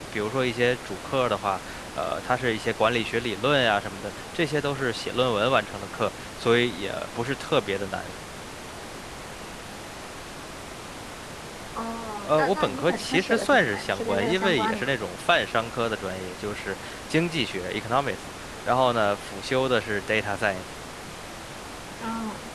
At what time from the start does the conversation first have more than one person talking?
12.2 s

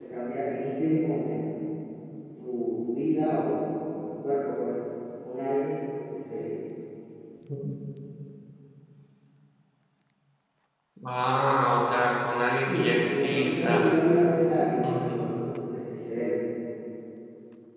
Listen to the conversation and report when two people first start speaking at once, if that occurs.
12.6 s

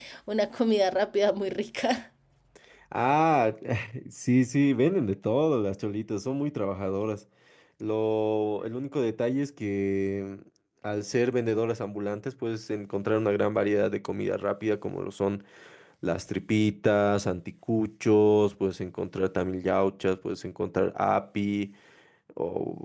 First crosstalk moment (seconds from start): none

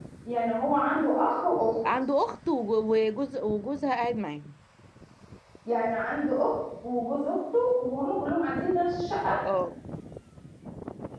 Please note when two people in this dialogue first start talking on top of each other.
none

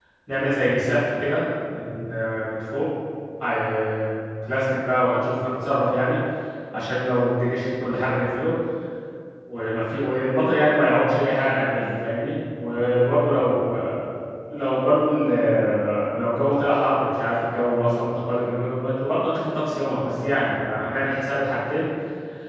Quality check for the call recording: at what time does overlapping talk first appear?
none

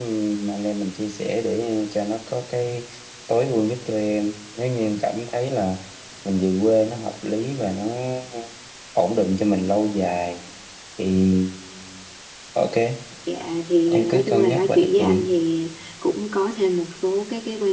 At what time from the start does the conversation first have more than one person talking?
13.9 s

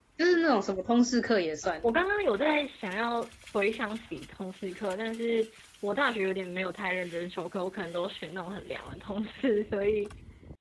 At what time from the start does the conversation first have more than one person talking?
none

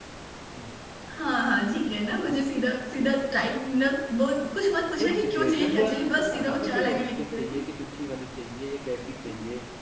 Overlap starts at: 5.0 s

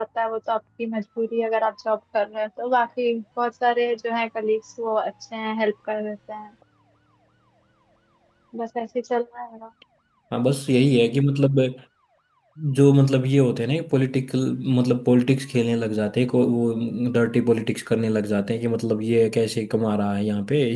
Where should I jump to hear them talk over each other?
none

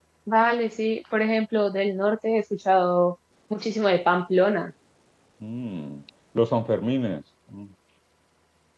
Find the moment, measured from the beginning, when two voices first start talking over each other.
none

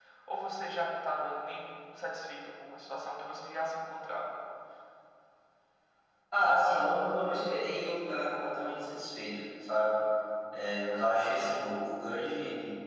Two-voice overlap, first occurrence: none

